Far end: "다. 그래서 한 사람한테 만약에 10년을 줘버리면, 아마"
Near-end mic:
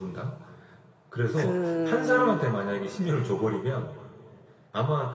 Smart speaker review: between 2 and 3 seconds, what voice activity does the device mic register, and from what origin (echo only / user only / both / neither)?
both